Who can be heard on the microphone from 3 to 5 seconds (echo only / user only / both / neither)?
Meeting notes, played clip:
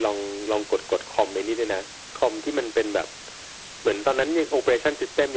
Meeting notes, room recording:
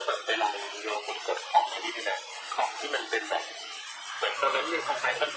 both